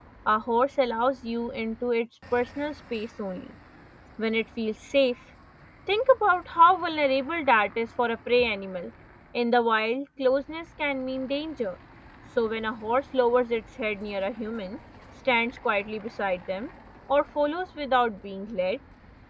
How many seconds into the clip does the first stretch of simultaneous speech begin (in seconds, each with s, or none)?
none